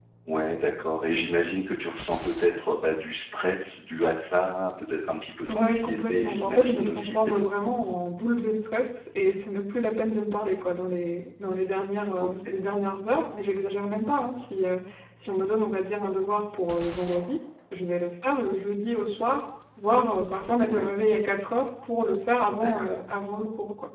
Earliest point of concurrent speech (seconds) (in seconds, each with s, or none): 5.5 s